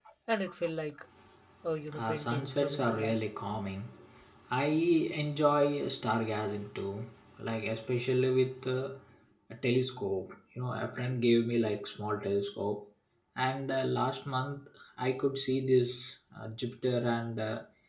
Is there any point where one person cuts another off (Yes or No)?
Yes